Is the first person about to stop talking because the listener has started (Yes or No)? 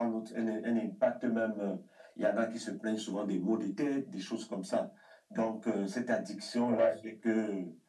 No